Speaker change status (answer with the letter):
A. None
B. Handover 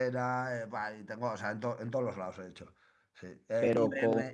A